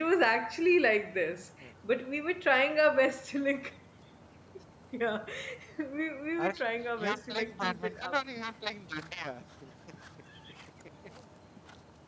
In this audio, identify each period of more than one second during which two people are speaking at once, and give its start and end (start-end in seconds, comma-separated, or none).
7.0-8.2